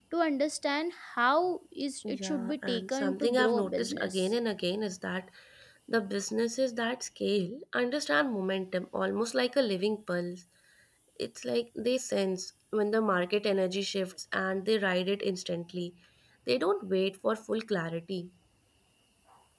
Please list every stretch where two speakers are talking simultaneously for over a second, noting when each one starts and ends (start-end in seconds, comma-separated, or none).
2.1-4.3